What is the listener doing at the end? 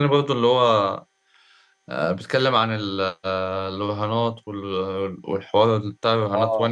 taking over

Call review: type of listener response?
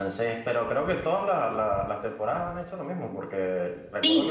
listening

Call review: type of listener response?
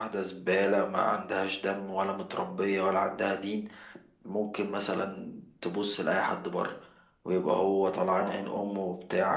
listening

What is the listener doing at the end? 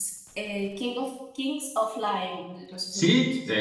taking over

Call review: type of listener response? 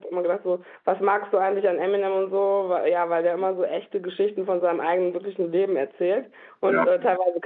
listening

